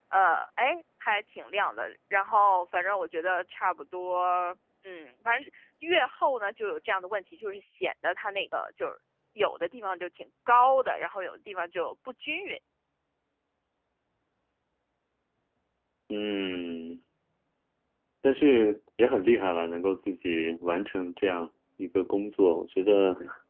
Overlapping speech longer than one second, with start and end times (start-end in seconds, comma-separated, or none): none